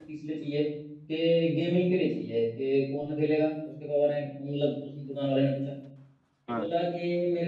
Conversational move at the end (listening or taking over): listening